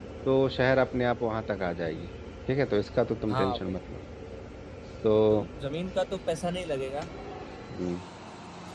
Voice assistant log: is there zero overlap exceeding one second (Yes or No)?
Yes